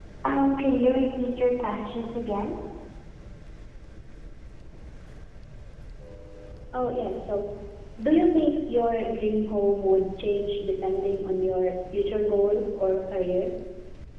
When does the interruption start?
none

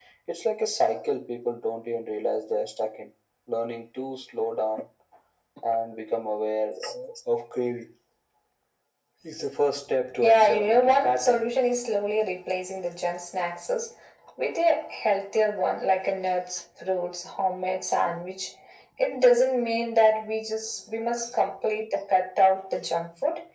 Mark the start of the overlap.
10.2 s

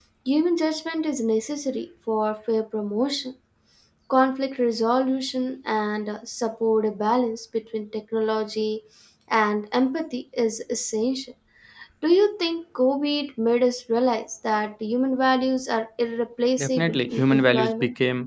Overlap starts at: 16.6 s

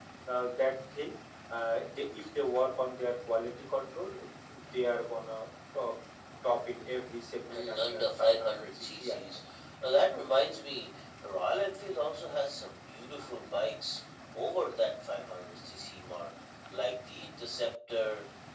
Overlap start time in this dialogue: 7.5 s

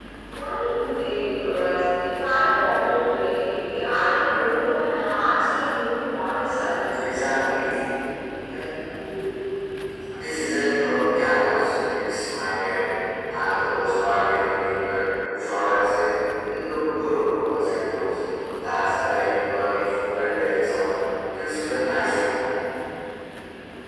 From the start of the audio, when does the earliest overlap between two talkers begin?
none

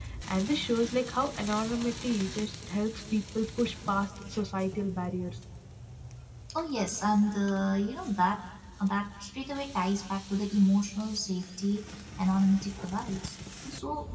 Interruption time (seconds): none

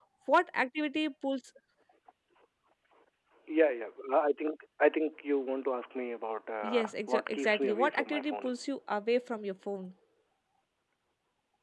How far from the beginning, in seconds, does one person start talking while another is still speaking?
6.6 s

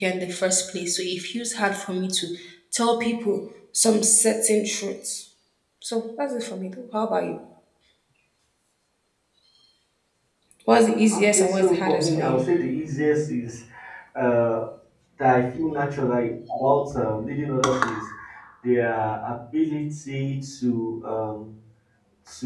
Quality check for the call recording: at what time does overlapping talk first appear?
11.1 s

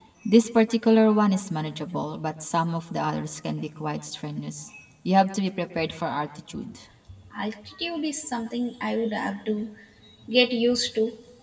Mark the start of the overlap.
none

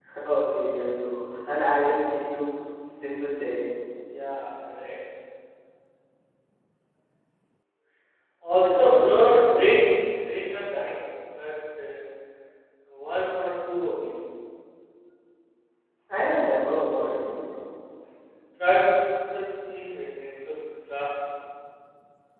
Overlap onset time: 8.6 s

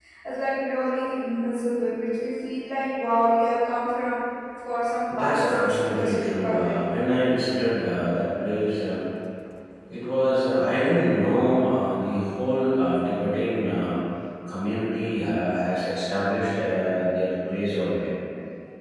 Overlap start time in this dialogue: 5.1 s

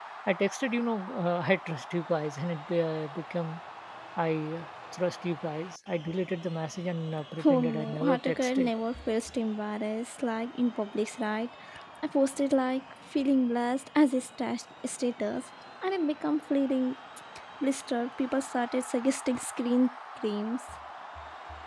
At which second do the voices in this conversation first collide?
7.4 s

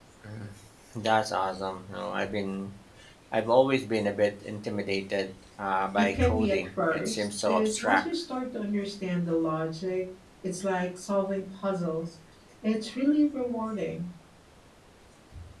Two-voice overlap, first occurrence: 6.0 s

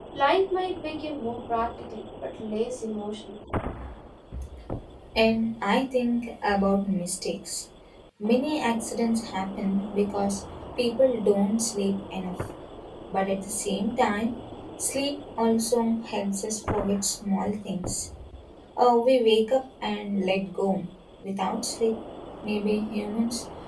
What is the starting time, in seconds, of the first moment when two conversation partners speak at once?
none

